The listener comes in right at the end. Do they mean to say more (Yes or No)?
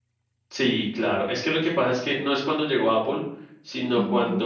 No